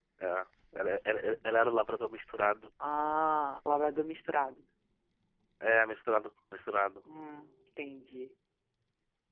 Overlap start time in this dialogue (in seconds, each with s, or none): none